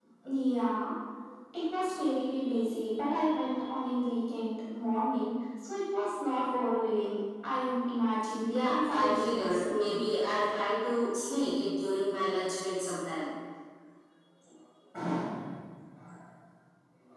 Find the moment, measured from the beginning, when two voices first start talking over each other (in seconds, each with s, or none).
8.5 s